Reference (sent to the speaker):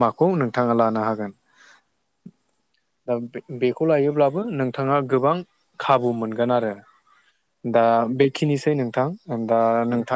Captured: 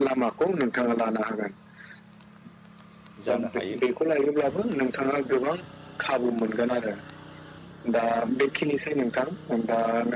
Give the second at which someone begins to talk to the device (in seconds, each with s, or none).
3.3 s